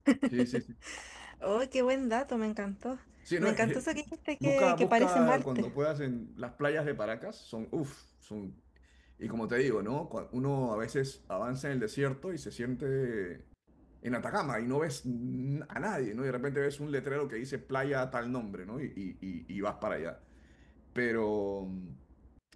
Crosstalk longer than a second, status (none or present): present